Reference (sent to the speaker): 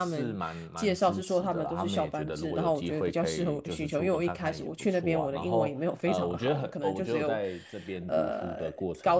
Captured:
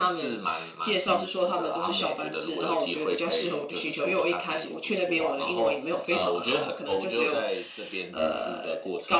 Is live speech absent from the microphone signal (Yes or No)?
Yes